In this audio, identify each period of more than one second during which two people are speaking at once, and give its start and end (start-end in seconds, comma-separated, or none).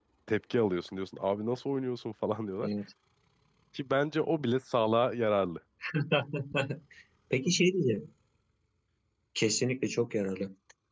none